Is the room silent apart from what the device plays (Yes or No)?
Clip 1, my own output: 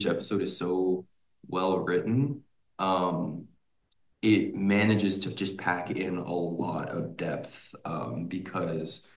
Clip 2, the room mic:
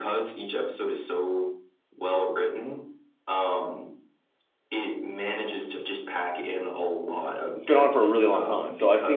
No